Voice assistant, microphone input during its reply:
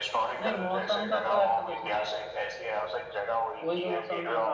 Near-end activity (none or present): present